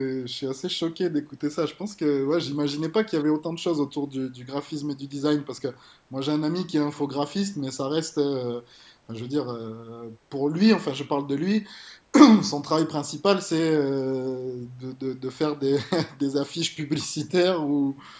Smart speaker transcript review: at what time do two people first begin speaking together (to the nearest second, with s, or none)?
none